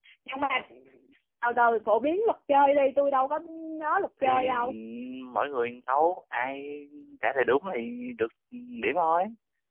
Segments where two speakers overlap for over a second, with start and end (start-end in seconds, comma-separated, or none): none